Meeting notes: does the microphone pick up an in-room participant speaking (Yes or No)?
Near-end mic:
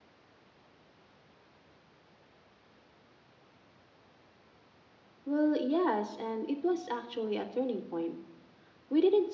Yes